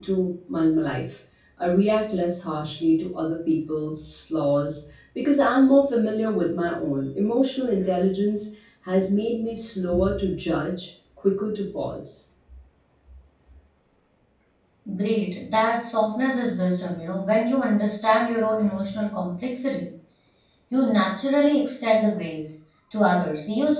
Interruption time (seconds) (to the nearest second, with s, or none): none